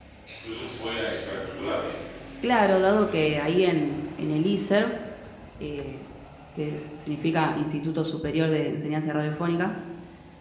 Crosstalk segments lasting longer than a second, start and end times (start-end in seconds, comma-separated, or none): none